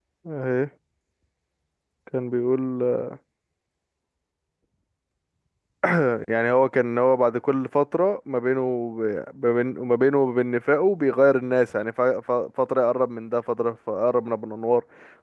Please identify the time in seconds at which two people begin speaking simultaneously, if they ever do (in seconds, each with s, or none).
none